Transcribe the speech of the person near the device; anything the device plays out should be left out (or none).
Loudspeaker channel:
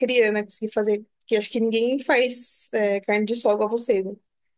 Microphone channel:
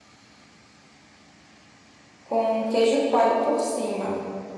com queijo coalho por cima.